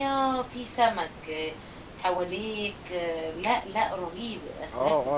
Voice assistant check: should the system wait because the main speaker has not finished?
No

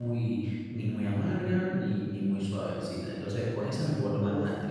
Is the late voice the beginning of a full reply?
Yes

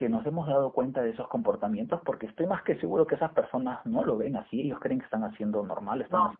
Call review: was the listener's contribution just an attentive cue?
Yes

